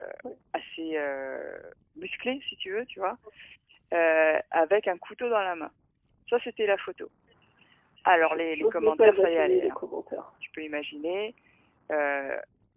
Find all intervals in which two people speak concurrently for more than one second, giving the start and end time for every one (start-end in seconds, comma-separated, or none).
8.2-9.8